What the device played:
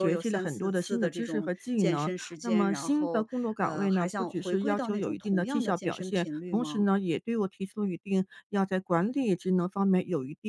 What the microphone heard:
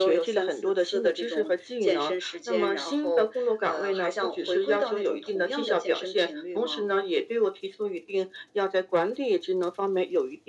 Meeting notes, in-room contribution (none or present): none